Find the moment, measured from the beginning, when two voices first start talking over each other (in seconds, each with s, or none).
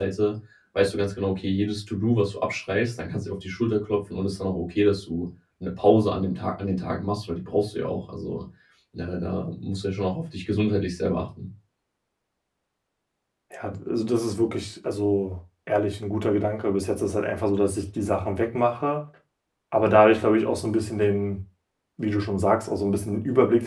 none